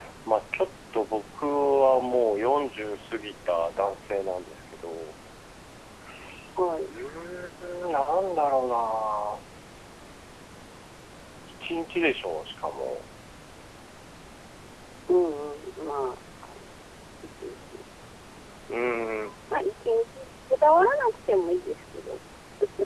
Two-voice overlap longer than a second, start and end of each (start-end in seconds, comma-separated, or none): none